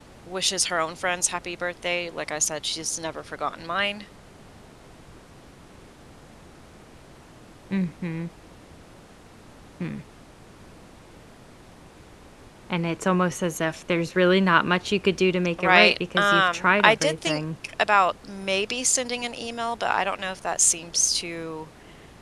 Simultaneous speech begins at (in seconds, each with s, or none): 15.6 s